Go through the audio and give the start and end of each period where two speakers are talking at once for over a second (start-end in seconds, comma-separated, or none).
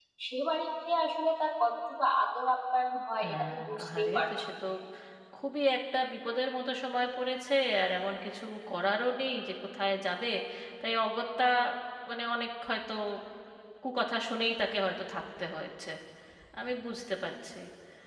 3.2-4.4